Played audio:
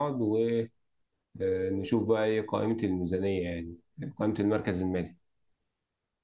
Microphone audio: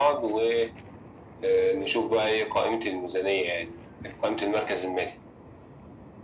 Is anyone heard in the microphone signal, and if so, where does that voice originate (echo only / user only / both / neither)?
echo only